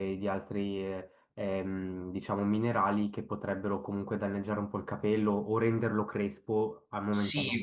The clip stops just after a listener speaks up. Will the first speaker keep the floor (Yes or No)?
No